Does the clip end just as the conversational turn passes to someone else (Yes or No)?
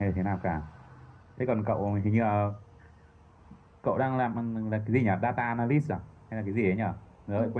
Yes